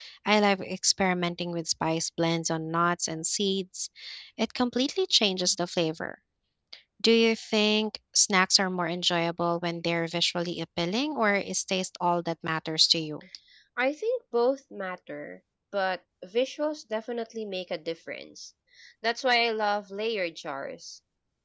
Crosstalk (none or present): none